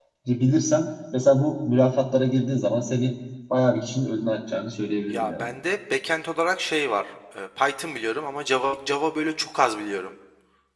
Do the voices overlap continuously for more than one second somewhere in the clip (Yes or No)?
No